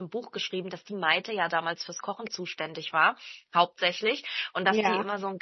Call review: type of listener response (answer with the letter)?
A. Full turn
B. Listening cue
B